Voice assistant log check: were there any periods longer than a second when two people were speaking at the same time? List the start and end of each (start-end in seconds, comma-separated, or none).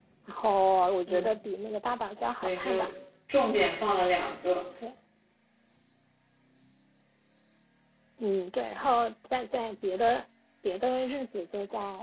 none